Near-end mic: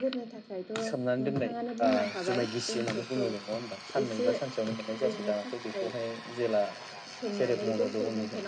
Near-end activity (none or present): none